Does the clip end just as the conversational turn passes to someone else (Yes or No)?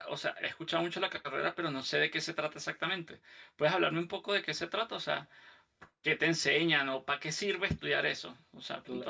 Yes